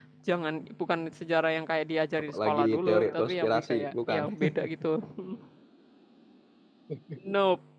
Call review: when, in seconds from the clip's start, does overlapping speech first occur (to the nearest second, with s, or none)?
2 s